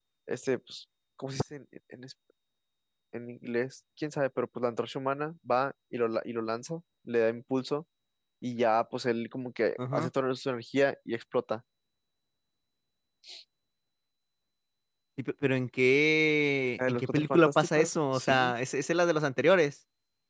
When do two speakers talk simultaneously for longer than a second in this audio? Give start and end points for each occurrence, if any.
16.8-18.5

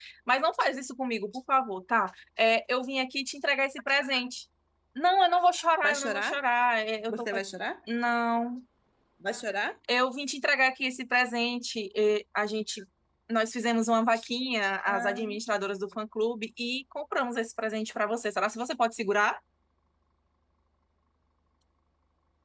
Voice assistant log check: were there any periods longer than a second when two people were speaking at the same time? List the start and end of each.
none

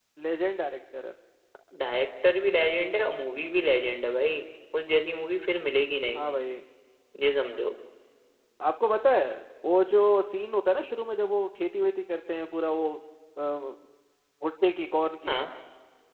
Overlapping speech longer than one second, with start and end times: none

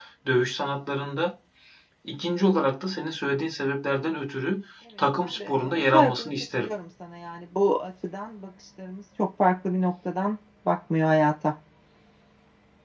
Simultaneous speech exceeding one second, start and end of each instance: 5.2-6.7

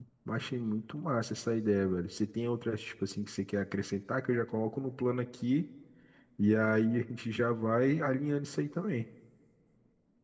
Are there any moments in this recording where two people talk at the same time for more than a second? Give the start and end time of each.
none

